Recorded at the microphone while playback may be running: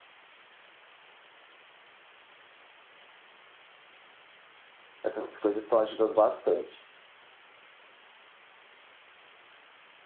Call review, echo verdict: none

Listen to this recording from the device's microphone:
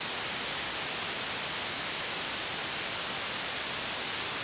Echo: none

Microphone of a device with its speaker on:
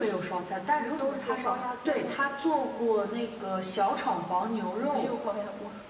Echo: present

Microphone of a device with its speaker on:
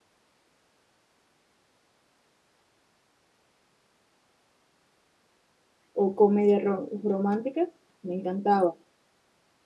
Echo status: none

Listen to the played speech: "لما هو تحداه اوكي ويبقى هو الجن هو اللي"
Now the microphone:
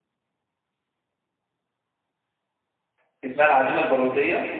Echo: none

